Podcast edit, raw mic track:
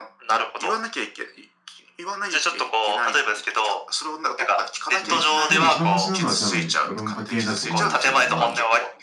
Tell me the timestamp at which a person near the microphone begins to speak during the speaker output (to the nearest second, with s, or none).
5 s